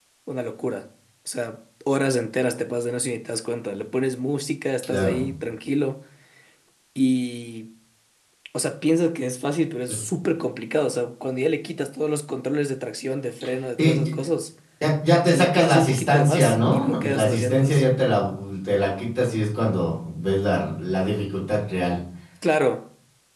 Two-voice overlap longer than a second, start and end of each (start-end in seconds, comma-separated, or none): 15.3-17.8